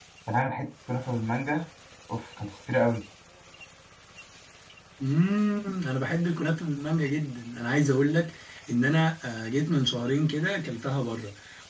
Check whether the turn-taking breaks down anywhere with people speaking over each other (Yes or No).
No